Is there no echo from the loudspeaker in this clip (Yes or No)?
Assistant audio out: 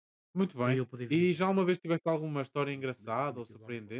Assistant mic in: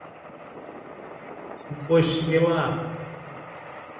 Yes